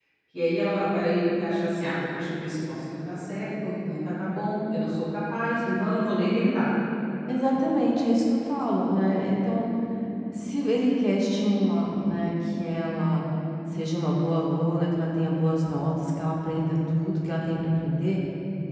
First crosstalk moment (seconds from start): none

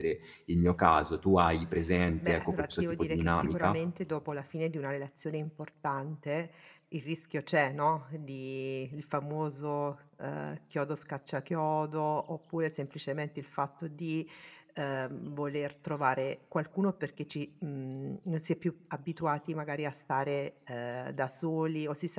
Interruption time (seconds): 2 s

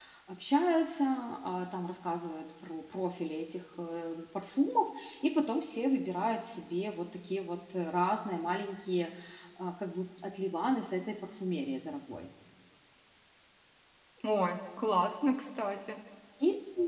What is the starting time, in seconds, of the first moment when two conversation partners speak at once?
none

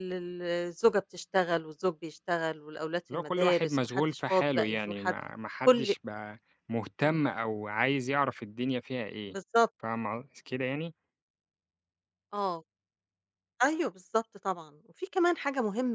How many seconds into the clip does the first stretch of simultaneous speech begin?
3 s

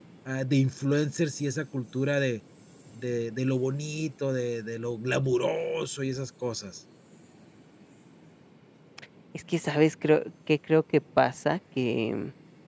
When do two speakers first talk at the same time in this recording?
none

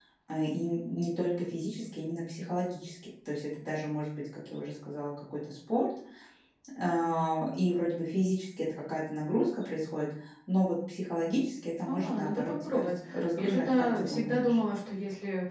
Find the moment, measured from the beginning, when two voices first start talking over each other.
12 s

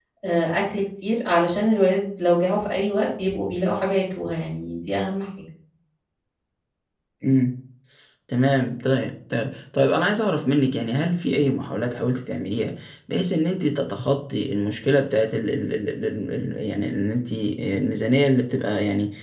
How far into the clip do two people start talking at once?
none

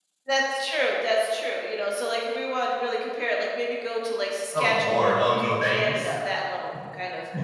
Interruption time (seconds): 5 s

